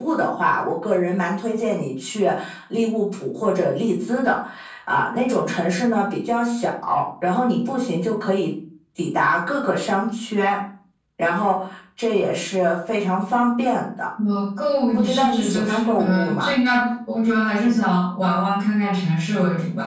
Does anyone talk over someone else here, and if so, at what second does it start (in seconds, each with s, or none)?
14.9 s